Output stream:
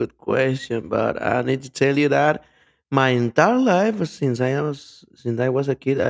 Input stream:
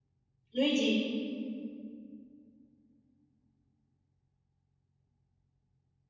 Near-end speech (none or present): present